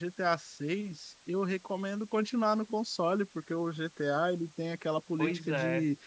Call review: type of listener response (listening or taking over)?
listening